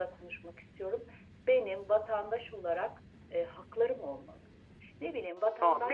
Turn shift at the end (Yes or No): Yes